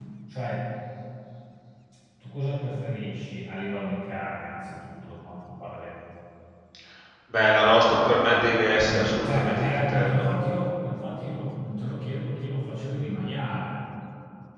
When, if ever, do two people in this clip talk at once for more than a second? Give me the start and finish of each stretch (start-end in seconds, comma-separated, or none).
8.9-10.3